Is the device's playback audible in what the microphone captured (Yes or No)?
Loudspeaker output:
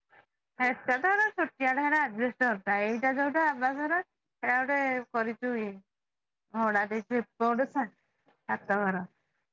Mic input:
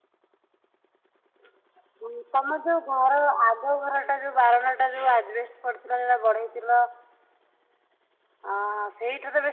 No